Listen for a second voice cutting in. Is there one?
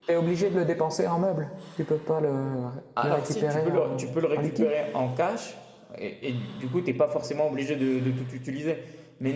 Yes, from 3.0 s

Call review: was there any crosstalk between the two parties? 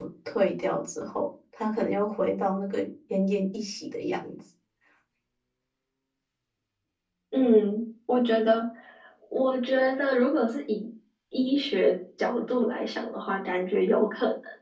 No

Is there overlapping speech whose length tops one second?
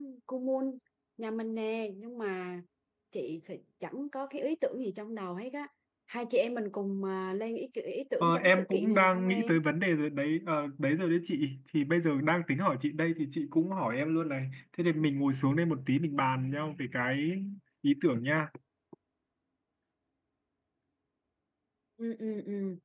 Yes, from 8.2 s

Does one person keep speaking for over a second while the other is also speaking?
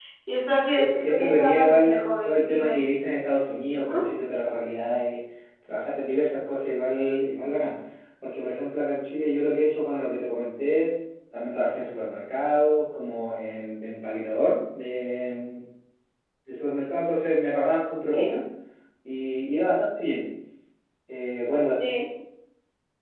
Yes, from 0.8 s

